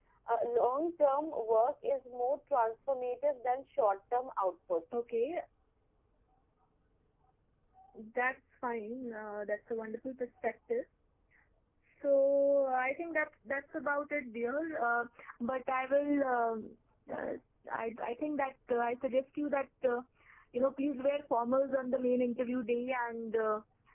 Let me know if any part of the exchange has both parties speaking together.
No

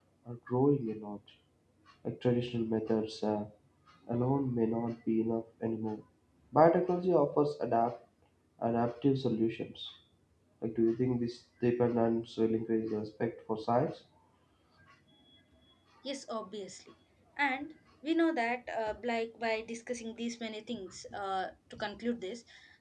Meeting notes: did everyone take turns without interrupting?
Yes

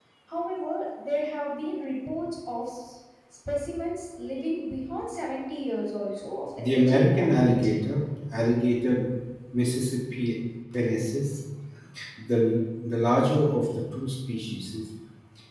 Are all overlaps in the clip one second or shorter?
No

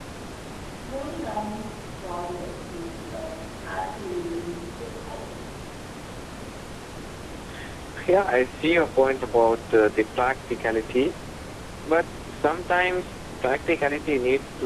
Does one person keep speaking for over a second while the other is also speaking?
No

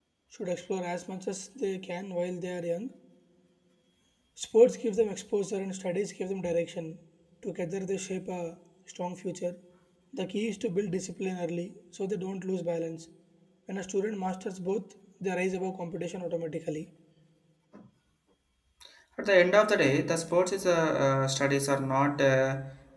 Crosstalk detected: No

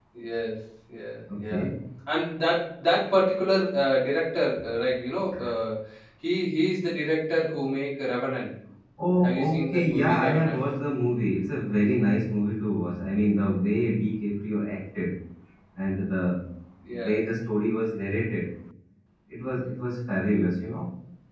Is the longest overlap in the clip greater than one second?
Yes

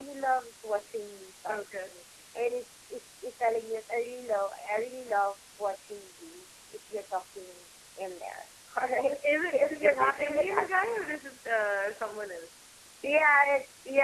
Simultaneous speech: Yes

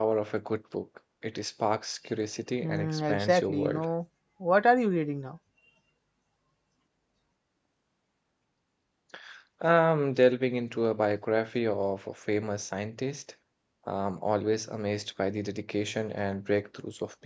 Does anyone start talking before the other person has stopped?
Yes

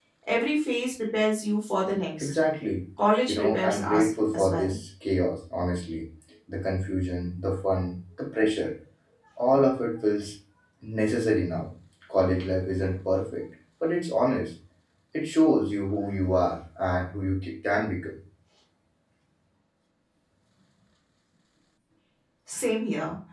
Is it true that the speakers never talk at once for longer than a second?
No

